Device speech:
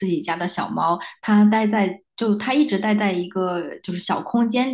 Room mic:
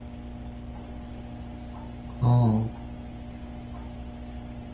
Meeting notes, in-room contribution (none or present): present